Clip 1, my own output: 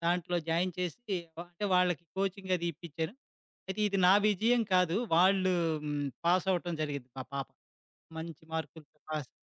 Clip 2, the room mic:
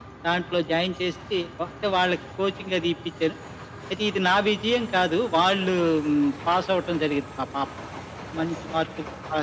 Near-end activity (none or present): none